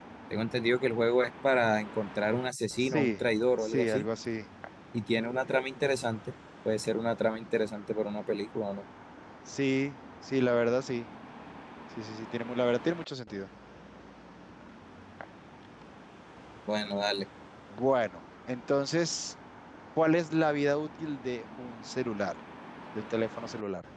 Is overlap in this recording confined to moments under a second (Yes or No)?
Yes